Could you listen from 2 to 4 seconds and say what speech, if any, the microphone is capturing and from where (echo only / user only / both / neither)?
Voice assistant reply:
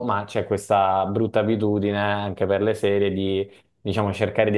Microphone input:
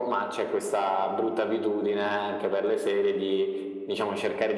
echo only